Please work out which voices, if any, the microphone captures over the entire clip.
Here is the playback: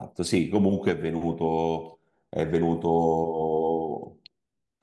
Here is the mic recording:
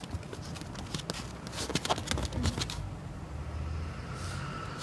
neither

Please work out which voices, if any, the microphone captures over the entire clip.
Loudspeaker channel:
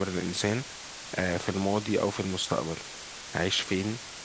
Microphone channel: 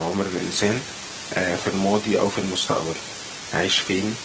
echo only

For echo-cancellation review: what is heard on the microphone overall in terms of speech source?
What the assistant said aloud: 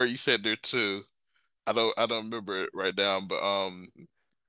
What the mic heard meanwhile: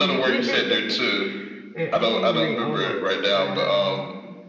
both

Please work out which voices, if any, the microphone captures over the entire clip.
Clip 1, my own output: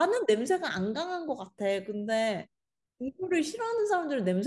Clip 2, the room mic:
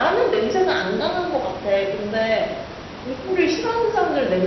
echo only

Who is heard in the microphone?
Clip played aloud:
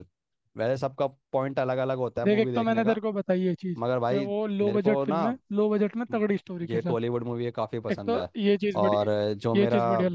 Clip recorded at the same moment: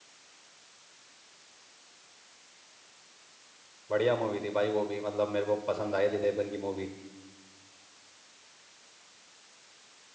user only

